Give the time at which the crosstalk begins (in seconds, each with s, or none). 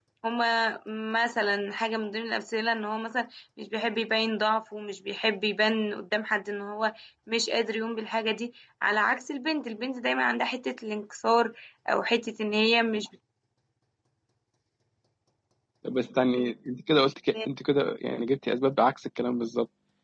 none